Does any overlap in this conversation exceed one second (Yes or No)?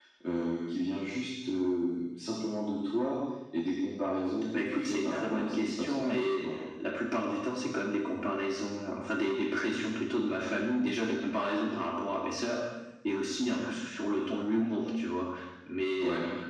Yes